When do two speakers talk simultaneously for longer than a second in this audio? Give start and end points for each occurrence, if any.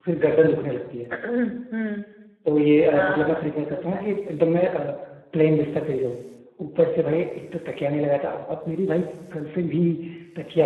2.9-4.1

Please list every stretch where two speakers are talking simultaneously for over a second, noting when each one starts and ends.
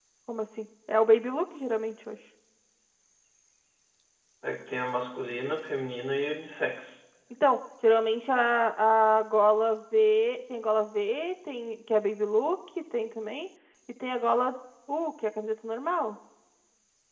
none

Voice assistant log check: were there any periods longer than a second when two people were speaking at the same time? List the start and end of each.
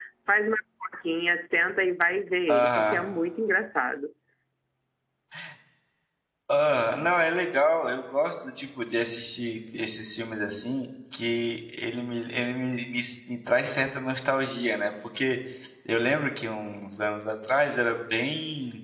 none

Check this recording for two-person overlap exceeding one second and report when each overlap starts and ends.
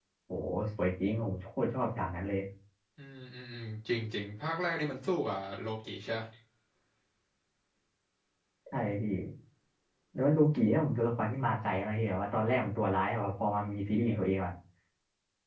none

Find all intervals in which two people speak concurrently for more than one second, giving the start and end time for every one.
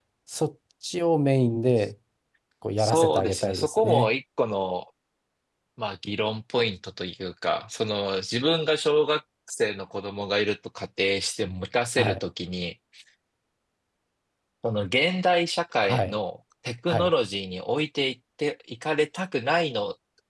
2.8-4.1

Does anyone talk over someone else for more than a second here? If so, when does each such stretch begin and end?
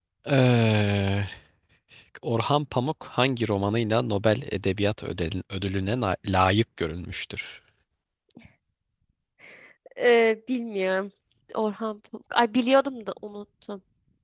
none

